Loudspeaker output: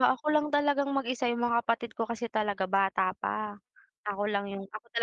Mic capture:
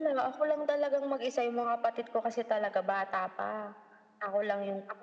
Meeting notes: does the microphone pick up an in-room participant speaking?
No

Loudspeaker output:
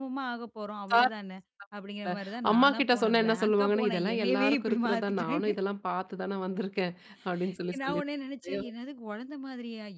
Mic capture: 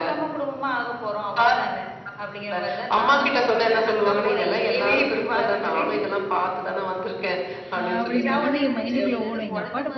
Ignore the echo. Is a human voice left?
Yes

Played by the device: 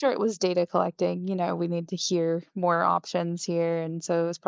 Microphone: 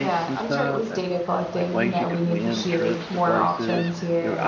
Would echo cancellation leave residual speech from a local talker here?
Yes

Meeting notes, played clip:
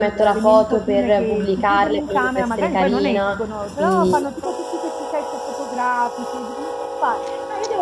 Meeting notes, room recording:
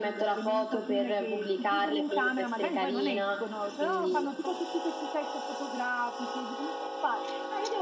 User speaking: No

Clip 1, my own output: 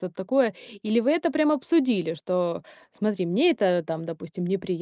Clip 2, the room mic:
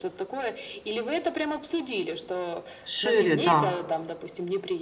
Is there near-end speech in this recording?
Yes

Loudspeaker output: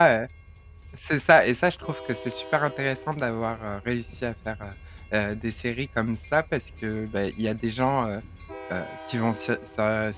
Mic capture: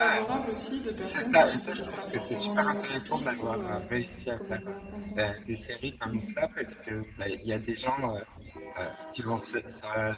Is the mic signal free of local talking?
No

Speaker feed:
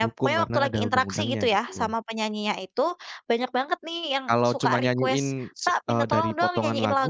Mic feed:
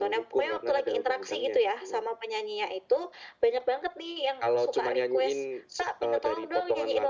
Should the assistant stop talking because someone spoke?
No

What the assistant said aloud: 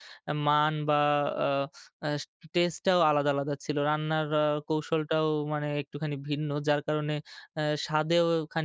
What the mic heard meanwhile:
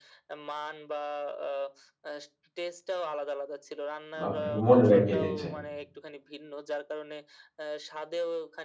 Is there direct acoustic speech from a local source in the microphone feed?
Yes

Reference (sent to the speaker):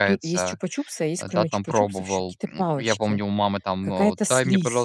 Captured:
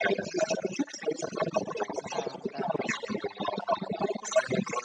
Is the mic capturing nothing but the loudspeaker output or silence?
No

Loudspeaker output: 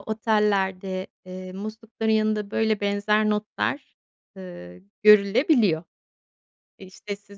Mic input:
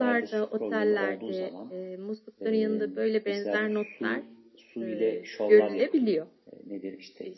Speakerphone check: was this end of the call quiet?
No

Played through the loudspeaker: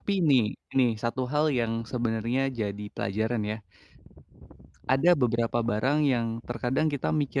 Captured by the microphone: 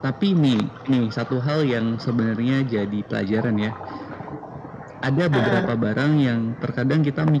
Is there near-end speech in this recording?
Yes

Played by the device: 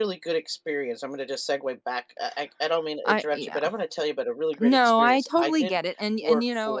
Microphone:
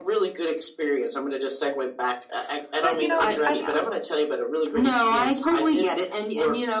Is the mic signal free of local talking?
No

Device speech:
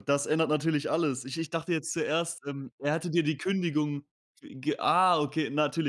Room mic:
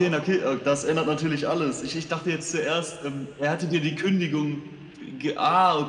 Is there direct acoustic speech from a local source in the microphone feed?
No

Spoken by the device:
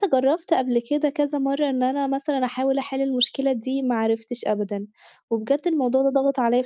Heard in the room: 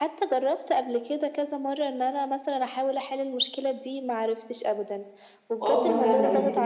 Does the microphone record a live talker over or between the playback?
Yes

